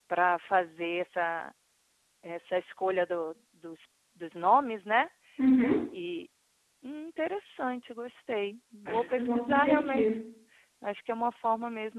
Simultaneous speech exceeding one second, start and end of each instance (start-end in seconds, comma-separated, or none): 8.8-10.1